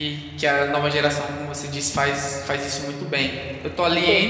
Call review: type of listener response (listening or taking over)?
listening